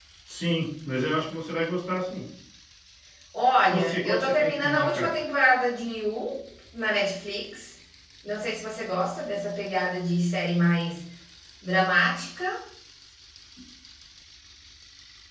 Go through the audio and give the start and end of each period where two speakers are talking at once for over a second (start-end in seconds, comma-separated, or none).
3.7-5.1